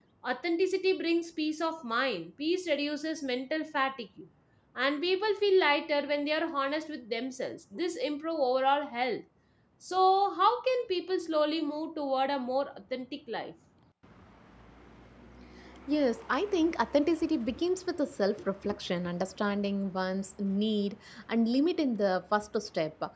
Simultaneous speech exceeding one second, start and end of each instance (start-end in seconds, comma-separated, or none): none